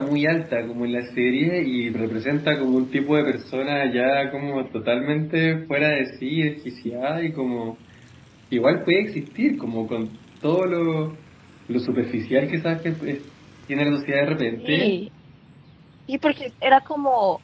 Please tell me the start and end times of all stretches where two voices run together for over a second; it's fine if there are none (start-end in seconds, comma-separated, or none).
none